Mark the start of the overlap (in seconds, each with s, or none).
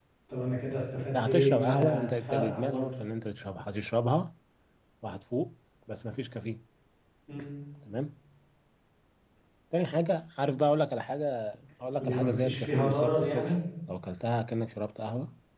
1.2 s